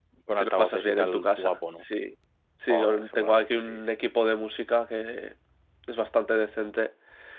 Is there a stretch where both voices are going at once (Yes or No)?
Yes